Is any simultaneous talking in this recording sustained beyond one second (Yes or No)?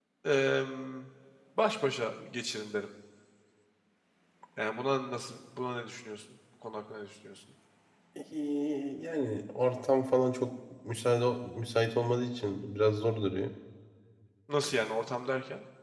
No